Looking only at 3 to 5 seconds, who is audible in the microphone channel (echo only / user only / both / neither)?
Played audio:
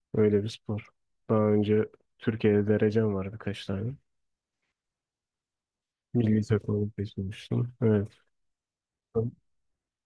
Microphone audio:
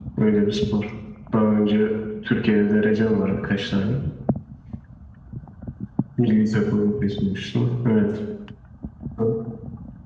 echo only